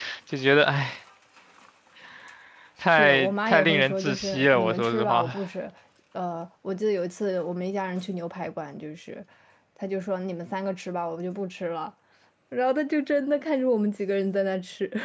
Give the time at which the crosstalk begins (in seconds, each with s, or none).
2.9 s